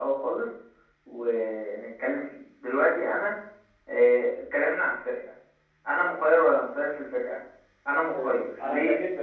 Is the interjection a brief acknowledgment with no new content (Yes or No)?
No